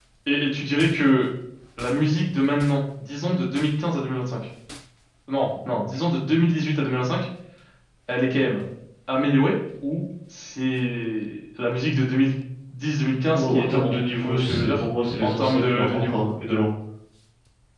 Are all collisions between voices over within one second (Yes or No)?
No